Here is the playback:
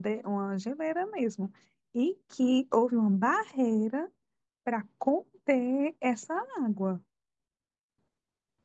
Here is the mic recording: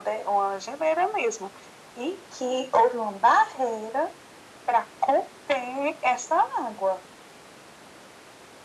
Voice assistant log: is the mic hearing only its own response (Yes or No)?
Yes